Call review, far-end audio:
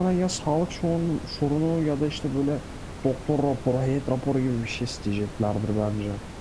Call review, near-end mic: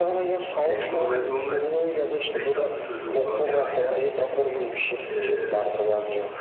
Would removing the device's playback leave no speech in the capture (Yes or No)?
No